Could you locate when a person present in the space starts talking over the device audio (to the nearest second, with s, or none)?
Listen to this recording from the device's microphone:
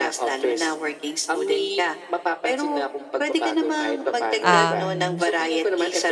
4 s